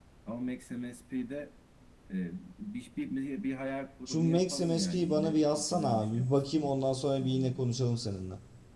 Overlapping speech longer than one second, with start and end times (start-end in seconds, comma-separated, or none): 4.1-6.7